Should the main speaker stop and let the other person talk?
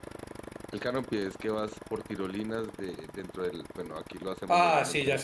Yes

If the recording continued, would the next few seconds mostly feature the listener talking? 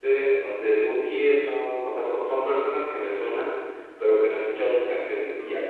No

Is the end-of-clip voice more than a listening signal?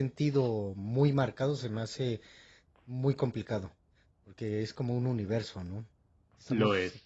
No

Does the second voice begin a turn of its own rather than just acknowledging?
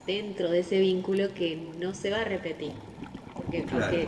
No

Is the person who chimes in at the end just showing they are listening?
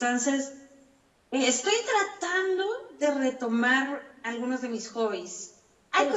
Yes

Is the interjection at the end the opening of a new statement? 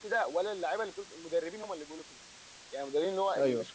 No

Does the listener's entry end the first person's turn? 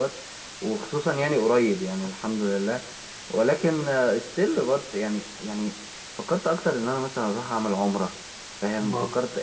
No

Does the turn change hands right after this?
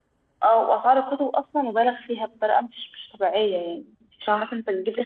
No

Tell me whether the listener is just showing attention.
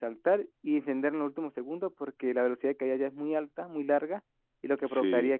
Yes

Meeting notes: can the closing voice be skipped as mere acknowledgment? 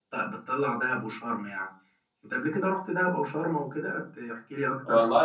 No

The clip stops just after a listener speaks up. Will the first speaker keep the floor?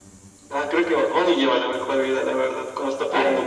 No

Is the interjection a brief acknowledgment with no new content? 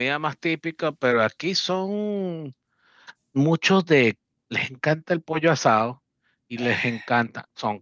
Yes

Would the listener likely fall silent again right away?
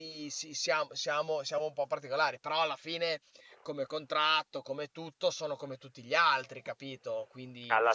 No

